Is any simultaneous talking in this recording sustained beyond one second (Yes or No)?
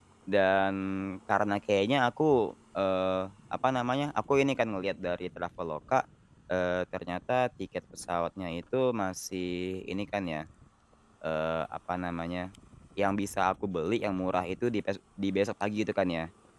No